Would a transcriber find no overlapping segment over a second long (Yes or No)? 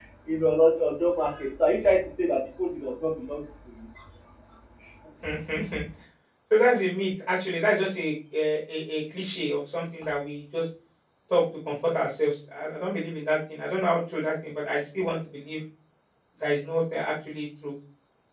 Yes